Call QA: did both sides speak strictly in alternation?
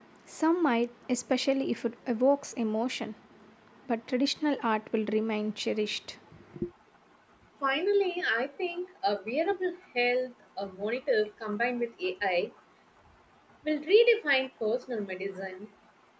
Yes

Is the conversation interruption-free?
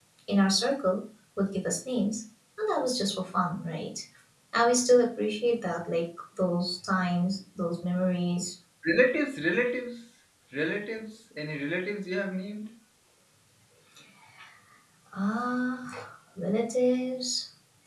Yes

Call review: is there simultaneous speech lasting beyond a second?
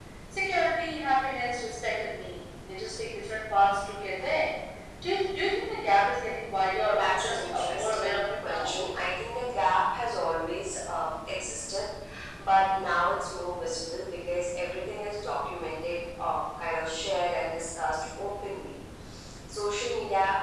Yes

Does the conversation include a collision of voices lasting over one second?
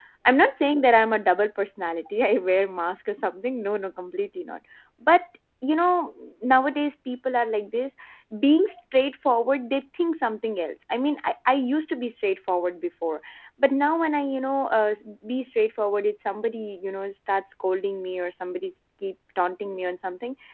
No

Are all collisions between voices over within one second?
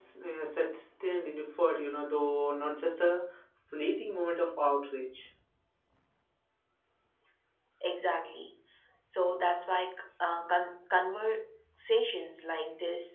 Yes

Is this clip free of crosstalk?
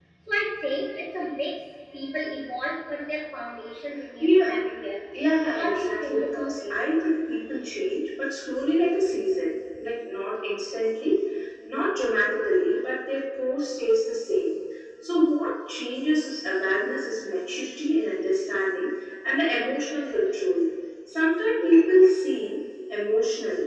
No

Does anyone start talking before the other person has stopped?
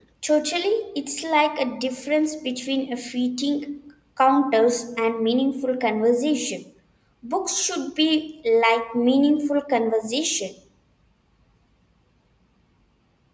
No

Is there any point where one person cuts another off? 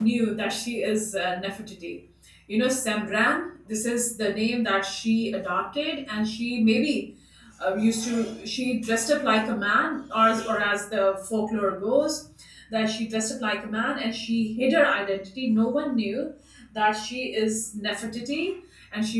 No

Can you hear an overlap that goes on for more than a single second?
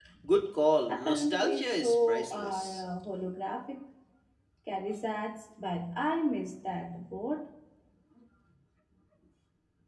Yes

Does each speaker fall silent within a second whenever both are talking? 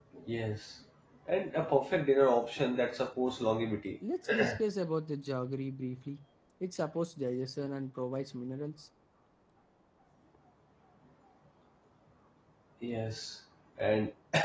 Yes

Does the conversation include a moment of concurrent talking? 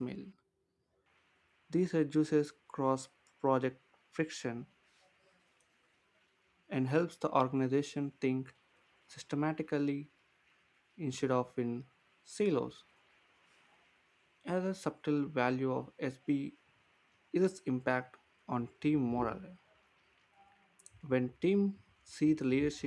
No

